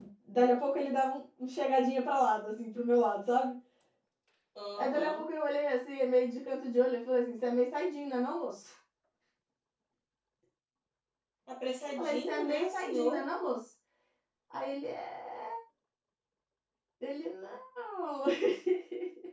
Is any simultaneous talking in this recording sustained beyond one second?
Yes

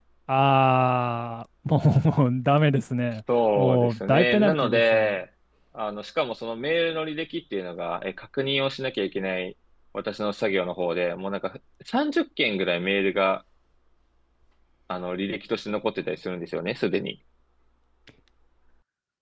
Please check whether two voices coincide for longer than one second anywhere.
Yes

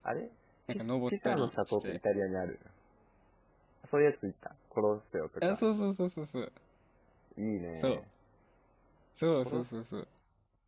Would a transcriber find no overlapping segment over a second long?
No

